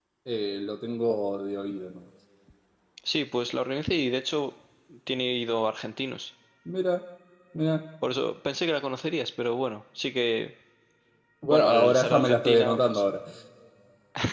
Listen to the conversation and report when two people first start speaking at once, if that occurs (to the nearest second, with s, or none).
12 s